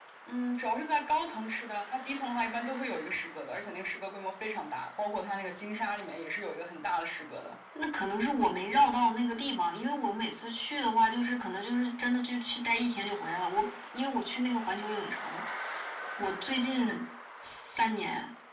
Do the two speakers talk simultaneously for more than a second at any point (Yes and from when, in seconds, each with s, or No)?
No